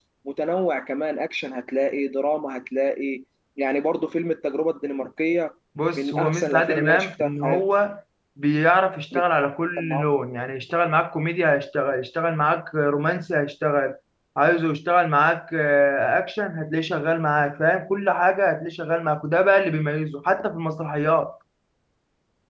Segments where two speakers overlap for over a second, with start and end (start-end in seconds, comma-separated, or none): 6.0-7.6